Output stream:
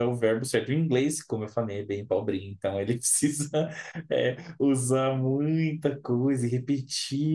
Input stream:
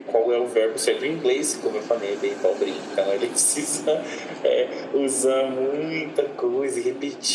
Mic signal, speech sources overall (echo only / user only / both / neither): echo only